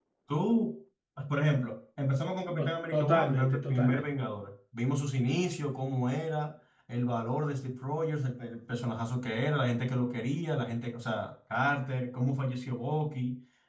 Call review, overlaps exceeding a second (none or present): present